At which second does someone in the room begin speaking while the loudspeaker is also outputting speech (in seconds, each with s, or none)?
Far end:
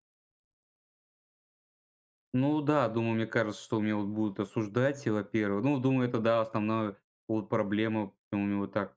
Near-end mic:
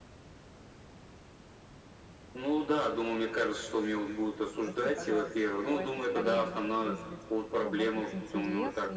4.6 s